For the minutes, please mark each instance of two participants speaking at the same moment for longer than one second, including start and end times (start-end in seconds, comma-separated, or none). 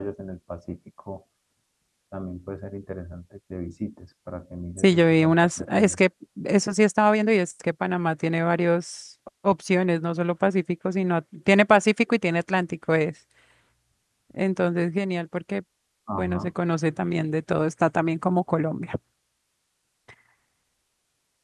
4.8-6.0